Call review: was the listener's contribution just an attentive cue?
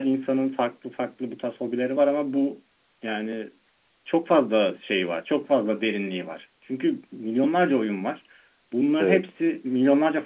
Yes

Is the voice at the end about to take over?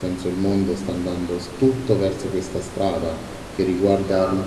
No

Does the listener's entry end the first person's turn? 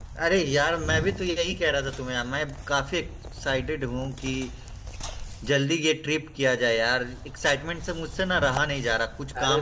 Yes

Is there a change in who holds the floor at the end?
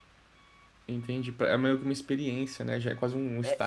Yes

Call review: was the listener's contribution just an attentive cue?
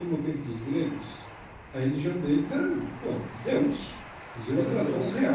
Yes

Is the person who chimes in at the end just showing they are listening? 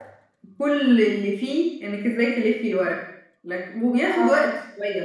Yes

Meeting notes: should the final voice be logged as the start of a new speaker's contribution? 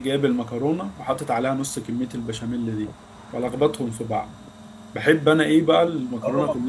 Yes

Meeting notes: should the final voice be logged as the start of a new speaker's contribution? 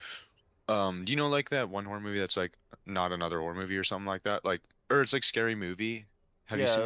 Yes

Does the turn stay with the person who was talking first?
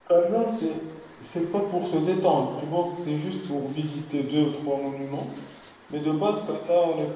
Yes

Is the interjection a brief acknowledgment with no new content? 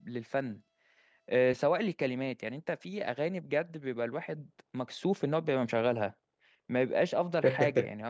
Yes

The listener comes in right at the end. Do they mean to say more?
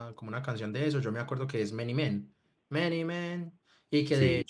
No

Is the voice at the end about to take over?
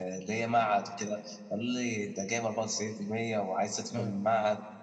No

